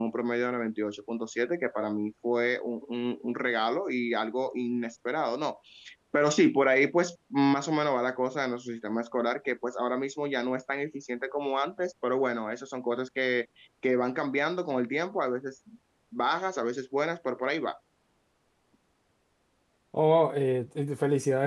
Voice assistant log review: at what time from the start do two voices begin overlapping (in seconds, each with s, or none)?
none